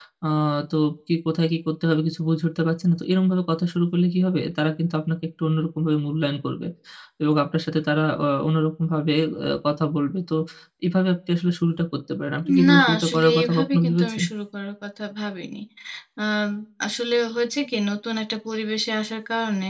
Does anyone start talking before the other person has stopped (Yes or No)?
Yes